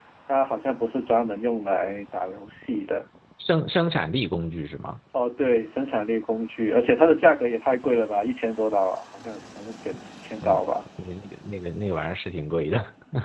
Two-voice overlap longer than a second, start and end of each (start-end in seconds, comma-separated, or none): none